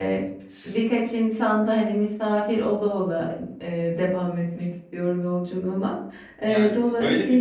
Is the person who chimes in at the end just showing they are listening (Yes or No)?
No